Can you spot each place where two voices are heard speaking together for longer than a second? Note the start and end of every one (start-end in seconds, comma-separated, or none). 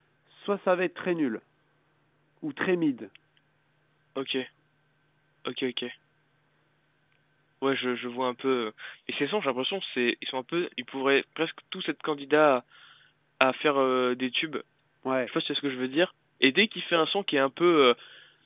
none